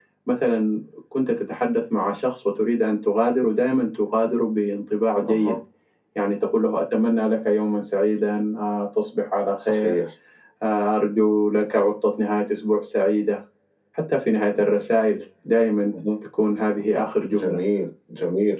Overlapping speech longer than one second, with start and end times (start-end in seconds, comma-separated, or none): none